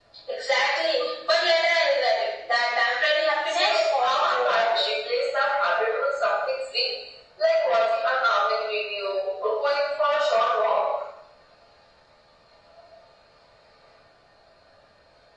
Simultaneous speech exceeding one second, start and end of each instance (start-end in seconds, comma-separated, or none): 3.5-4.8